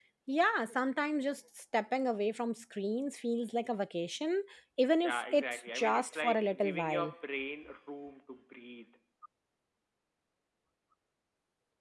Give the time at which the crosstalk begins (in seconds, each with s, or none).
5.0 s